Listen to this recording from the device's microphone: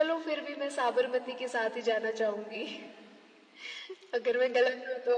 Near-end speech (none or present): none